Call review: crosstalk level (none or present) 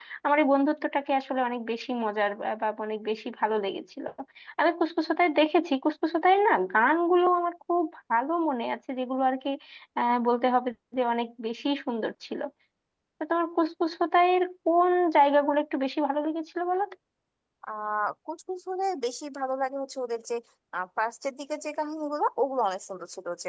none